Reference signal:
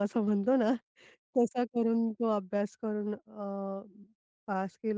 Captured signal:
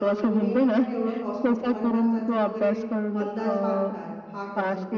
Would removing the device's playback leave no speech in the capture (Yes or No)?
No